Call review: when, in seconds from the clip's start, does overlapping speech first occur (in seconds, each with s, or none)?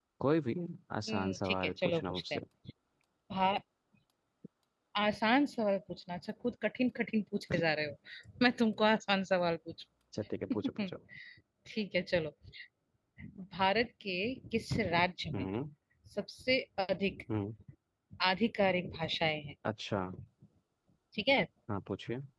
1.1 s